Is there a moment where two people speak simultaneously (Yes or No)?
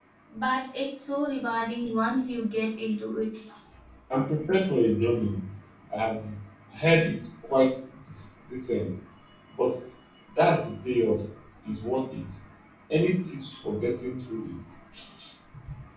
No